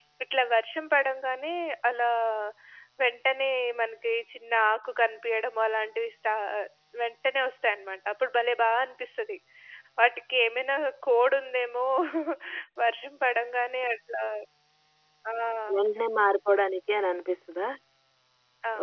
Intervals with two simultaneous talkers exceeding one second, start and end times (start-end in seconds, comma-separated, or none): none